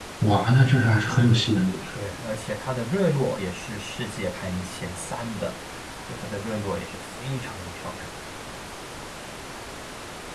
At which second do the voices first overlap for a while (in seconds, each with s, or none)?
none